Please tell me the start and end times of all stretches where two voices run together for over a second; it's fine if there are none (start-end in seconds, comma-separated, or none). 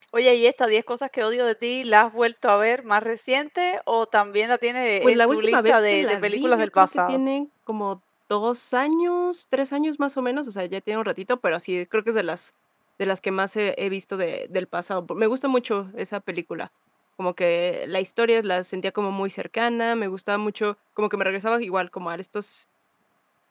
5.0-7.2